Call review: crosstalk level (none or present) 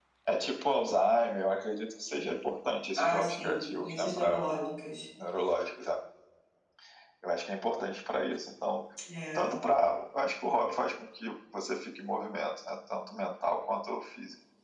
present